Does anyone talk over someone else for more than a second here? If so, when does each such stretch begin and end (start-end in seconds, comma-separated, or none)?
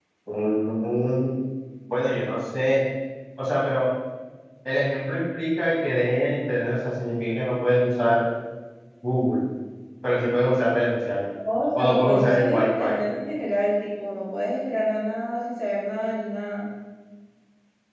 11.8-13.0